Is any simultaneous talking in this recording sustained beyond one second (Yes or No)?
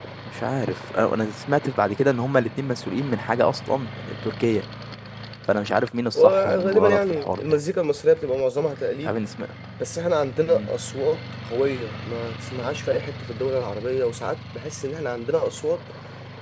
Yes